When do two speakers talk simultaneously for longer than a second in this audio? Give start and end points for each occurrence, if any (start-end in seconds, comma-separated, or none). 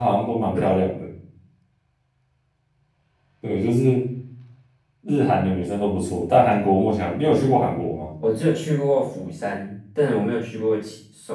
none